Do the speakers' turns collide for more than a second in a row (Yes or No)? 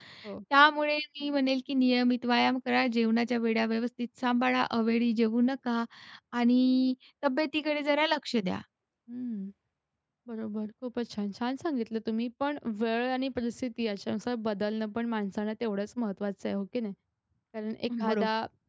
No